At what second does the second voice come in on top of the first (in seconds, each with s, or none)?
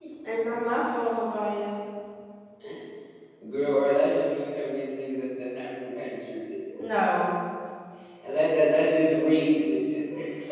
none